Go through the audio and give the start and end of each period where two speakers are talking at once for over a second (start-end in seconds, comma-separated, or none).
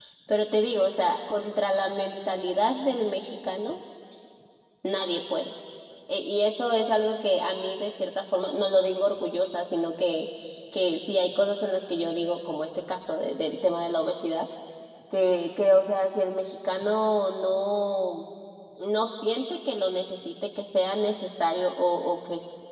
none